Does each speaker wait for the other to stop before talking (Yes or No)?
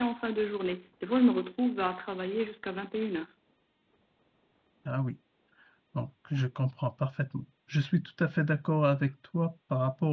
Yes